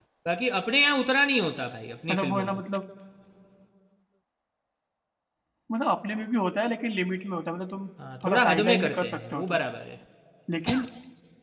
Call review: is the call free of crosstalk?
No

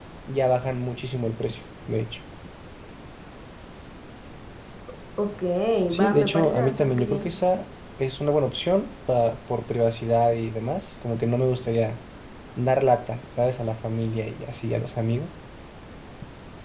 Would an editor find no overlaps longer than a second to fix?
No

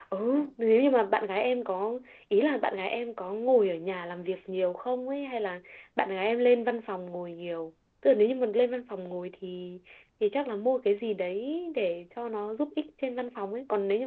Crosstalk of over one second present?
No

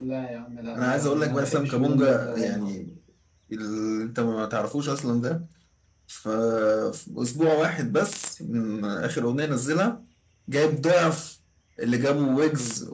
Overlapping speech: Yes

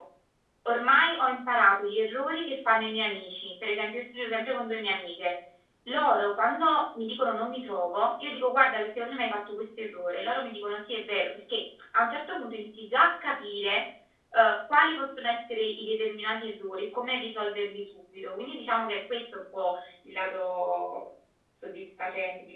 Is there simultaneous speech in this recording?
No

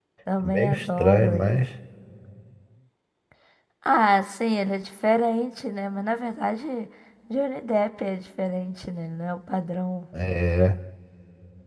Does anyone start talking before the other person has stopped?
Yes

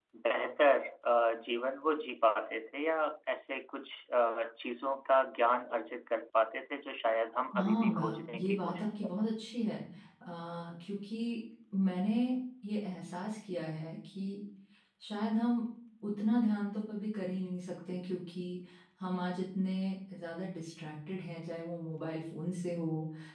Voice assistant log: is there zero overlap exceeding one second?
No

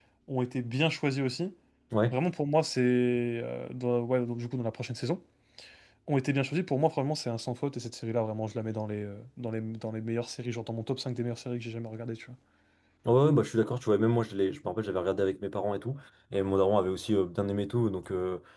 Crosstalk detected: No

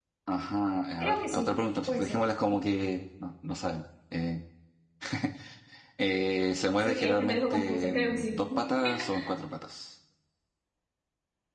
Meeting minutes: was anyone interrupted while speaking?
Yes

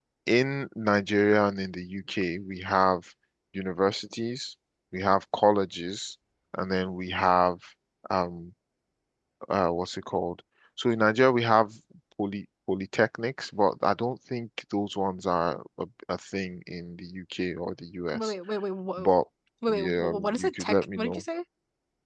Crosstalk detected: Yes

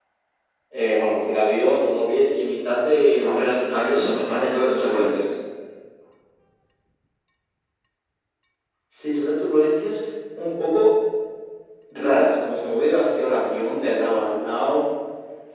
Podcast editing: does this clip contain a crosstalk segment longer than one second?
Yes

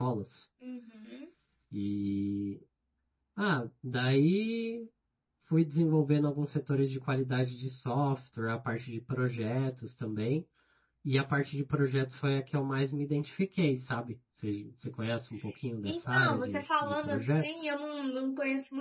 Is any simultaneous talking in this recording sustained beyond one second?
Yes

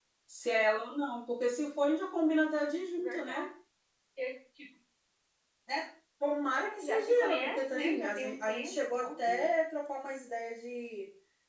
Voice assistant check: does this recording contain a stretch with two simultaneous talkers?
Yes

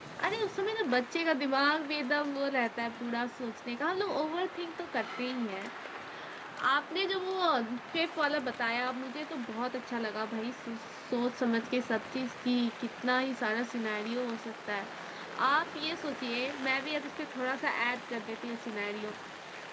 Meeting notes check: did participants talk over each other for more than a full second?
No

